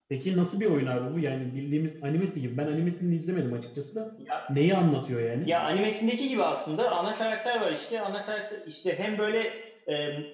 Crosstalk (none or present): none